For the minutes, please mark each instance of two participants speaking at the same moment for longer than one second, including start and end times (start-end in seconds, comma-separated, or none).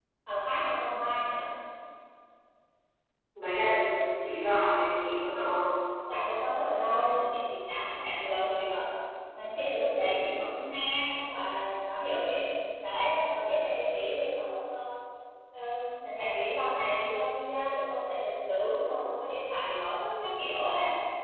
none